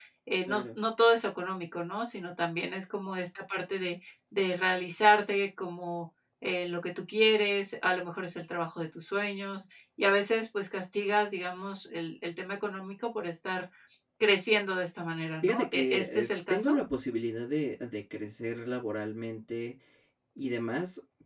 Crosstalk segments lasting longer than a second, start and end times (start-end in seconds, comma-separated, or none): 15.4-16.8